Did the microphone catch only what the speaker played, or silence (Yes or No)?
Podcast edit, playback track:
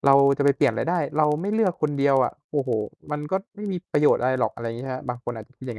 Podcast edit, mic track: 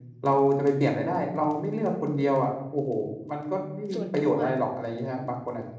No